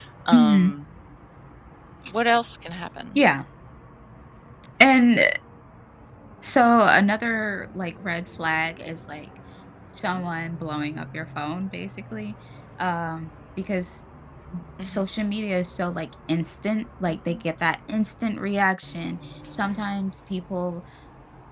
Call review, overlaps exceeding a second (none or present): none